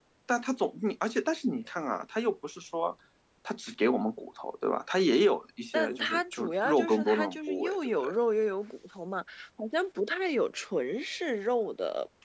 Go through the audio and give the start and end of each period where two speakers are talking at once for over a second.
5.7-8.1

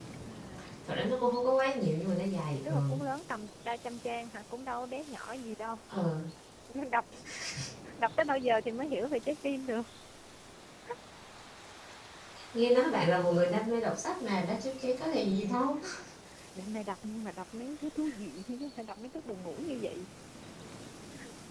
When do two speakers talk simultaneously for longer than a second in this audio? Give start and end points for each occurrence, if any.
none

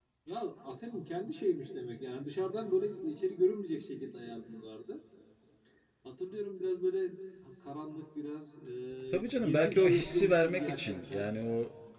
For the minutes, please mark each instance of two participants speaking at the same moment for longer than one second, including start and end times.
9.1-11.2

